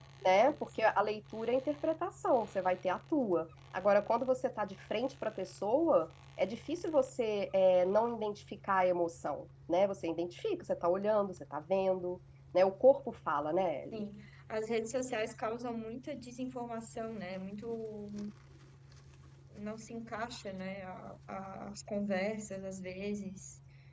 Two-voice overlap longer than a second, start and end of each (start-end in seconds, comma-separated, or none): none